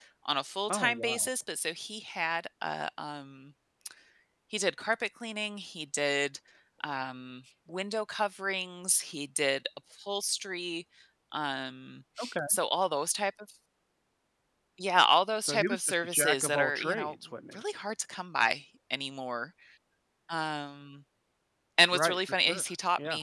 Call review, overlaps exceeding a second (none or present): present